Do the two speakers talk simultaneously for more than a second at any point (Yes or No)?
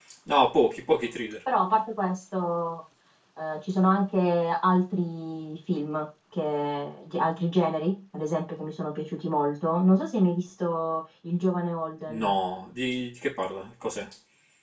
No